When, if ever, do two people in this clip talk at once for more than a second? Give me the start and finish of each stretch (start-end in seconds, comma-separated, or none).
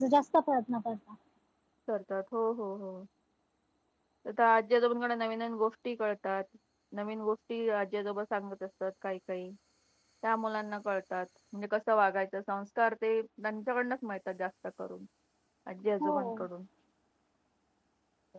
none